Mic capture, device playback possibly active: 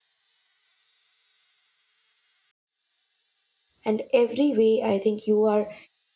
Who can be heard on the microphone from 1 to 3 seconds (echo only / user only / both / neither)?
neither